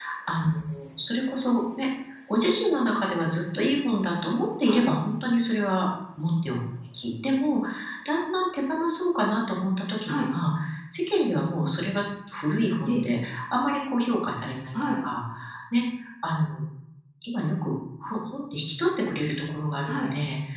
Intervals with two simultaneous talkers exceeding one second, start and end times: none

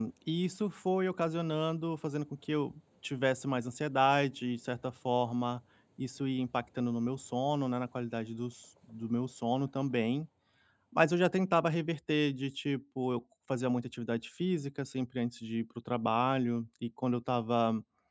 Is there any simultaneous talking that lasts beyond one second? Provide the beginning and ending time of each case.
none

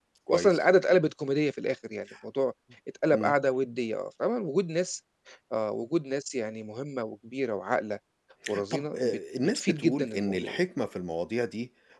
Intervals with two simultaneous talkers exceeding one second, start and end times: 8.7-10.6

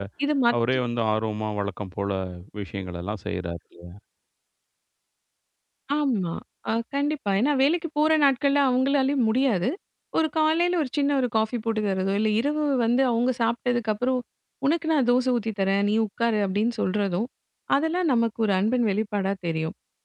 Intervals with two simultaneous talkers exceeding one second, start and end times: none

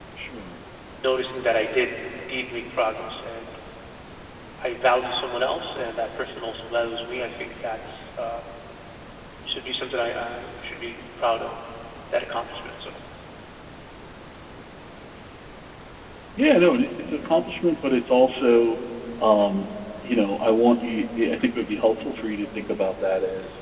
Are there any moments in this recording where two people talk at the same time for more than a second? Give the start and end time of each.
none

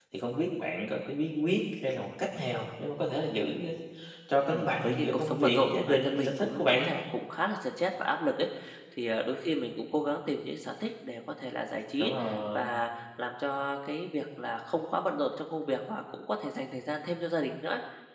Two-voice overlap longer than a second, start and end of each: 4.5-6.9

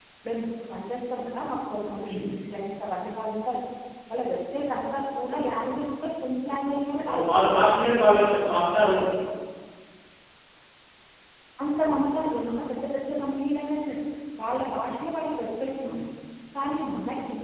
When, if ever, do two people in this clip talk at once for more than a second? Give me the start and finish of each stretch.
7.1-8.6

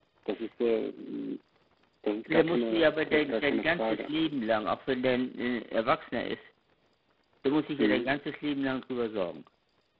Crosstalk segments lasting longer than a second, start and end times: 2.3-4.1

